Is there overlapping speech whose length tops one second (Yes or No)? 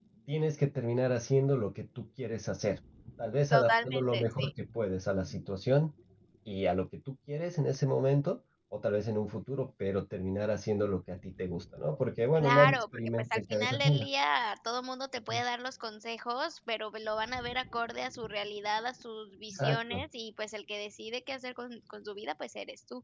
Yes